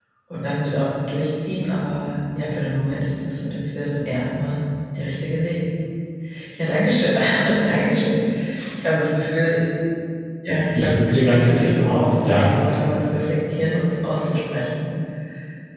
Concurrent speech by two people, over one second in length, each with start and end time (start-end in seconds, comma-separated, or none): 10.7-12.5